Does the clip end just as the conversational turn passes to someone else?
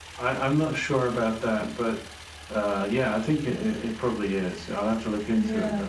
Yes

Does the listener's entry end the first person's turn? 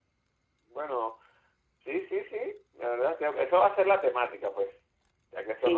No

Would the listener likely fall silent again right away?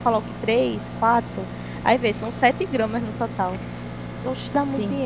No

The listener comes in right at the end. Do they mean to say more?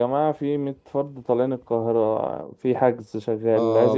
Yes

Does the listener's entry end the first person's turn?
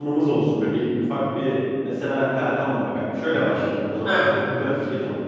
No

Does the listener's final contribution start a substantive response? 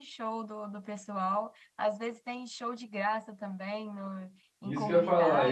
Yes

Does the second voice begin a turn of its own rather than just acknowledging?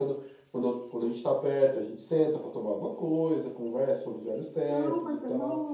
Yes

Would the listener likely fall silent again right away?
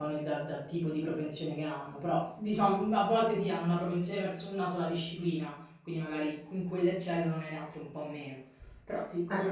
No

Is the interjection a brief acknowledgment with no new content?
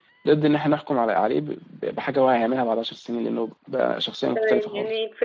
No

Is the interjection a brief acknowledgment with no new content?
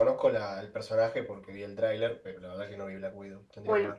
No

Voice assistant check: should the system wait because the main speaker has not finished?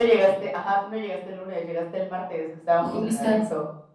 No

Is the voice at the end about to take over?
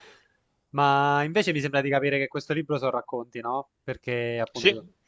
No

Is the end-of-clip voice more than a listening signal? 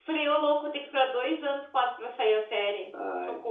Yes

